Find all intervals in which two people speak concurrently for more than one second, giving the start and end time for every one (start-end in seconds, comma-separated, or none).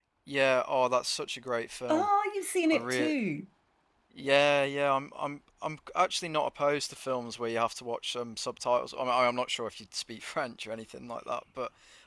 none